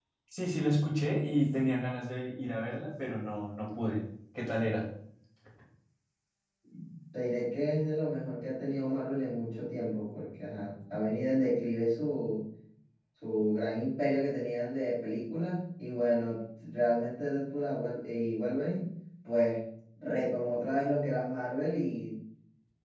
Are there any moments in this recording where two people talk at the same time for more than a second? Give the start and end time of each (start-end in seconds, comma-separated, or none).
none